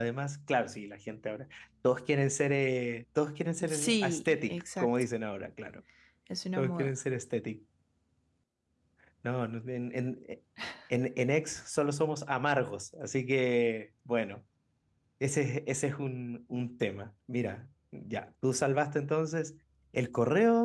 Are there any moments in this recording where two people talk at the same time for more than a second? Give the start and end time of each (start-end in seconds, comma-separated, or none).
3.7-4.9